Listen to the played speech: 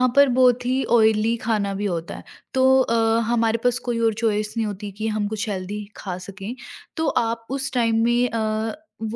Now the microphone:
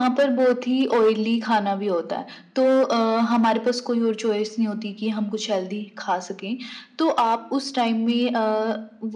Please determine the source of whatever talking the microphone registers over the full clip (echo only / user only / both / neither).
echo only